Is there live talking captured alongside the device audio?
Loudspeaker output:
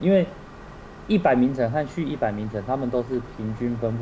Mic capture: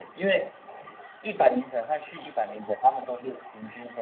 No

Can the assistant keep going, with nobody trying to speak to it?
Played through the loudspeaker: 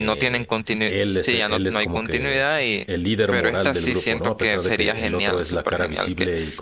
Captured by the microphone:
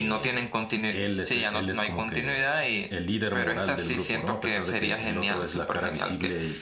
Yes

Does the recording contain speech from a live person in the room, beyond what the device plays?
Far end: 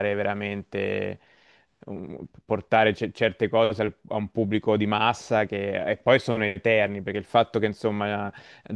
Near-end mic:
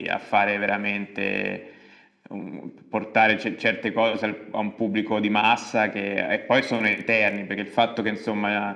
No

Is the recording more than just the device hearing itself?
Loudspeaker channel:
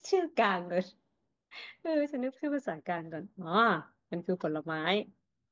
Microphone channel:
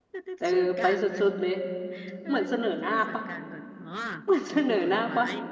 Yes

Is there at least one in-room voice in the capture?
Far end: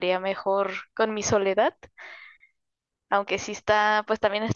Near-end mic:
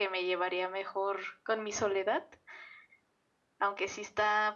No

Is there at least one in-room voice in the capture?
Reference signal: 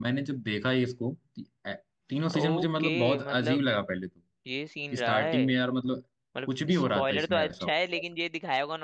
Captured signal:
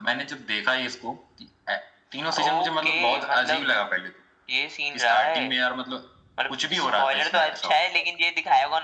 No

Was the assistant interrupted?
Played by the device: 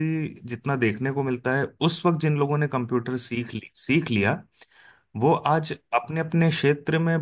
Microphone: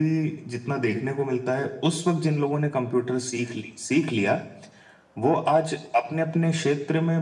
No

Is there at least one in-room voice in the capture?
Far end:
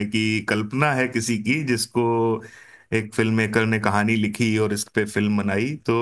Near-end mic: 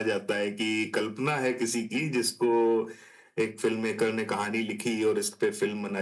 No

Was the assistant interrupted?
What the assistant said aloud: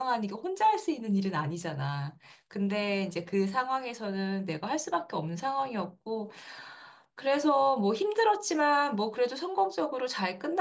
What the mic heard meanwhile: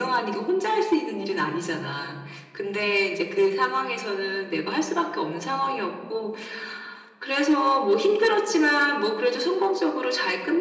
No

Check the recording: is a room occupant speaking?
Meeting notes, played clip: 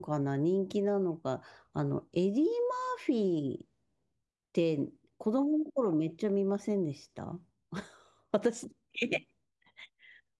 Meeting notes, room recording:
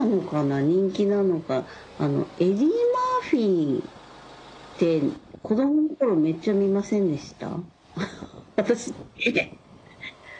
No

